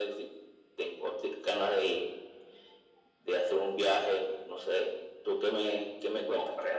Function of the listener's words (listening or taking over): taking over